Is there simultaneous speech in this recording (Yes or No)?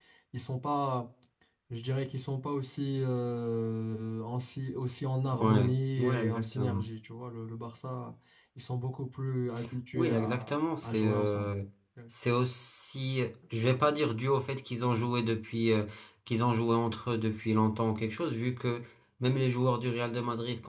Yes